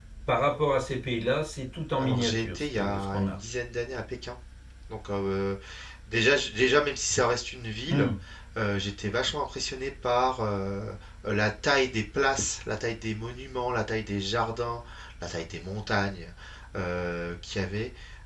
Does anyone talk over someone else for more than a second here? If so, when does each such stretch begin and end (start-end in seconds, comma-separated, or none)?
2.0-3.4